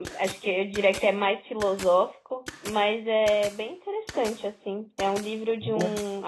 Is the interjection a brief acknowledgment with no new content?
Yes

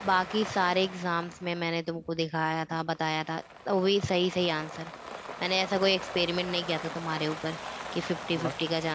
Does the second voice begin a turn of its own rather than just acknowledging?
No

